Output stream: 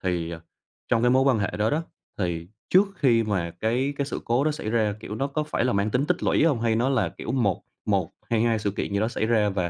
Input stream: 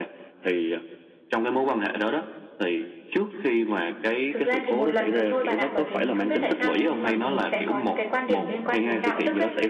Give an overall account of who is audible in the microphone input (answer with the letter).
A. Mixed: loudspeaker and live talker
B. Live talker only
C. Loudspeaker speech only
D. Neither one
A